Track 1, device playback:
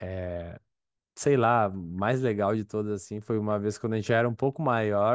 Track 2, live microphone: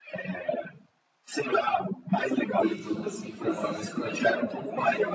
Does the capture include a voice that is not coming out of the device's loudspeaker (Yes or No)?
Yes